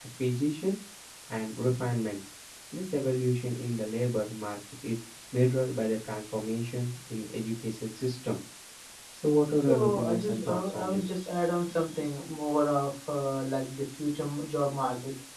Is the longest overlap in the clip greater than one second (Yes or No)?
Yes